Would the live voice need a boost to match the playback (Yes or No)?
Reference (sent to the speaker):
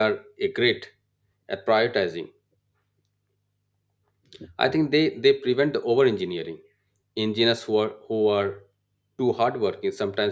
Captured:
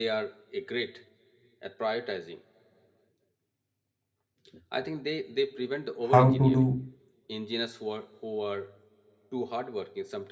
No